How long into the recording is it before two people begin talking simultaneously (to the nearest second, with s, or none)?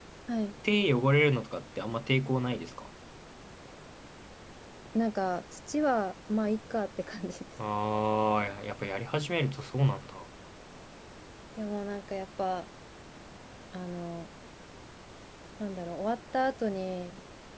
none